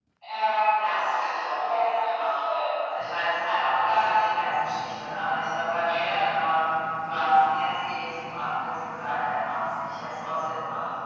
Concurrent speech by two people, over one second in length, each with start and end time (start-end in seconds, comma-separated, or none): 0.8-2.5